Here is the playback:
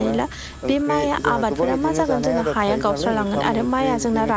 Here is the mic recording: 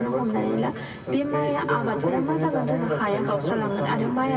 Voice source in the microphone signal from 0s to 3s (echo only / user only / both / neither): echo only